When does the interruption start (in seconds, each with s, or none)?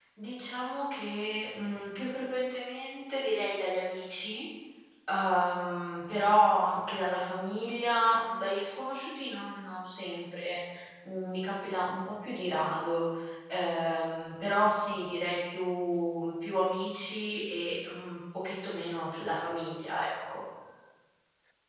none